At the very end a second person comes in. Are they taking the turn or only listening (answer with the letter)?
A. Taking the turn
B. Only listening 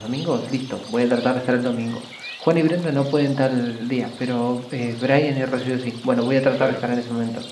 B